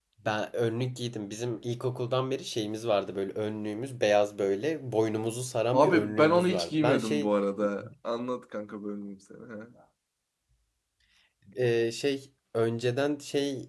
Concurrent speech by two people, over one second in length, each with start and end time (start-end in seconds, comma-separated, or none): 5.7-7.3